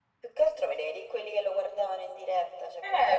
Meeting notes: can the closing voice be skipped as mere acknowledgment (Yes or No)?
No